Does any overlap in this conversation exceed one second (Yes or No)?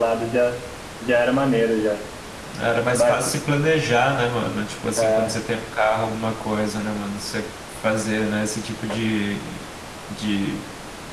No